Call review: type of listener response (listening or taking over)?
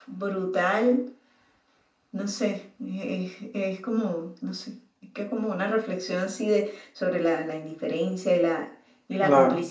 listening